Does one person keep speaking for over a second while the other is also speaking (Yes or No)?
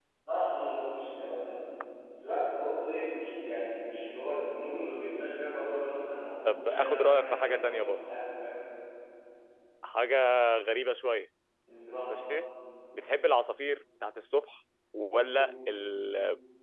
Yes